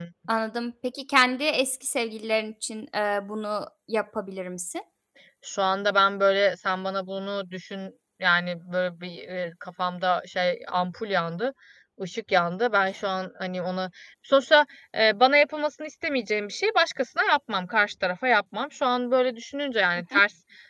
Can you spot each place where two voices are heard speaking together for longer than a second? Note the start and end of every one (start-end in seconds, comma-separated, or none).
none